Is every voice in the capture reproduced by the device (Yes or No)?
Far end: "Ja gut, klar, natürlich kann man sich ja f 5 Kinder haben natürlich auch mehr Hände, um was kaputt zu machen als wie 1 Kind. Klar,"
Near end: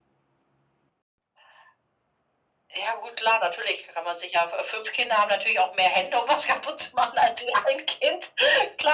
Yes